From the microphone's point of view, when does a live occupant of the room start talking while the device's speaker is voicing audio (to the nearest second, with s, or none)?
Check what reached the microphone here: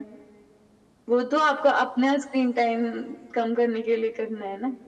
none